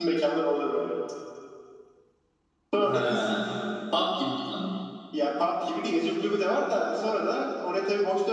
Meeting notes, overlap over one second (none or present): none